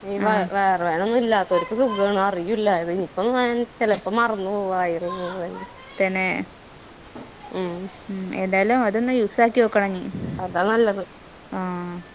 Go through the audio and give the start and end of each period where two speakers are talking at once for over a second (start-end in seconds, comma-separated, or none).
none